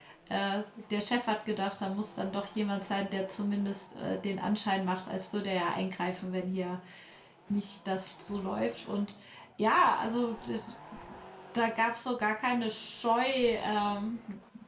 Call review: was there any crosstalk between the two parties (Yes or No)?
No